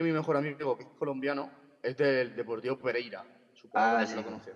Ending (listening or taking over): taking over